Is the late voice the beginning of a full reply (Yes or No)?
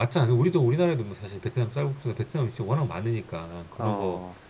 No